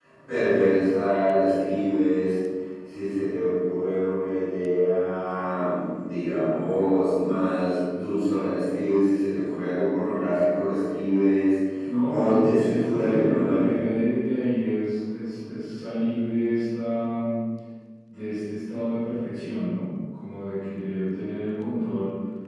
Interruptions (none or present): present